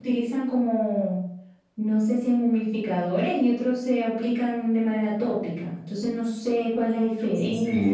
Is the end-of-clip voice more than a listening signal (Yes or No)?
Yes